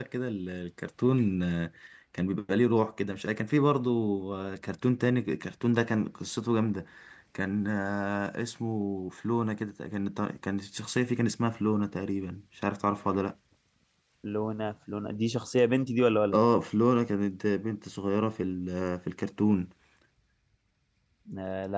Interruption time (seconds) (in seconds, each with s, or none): none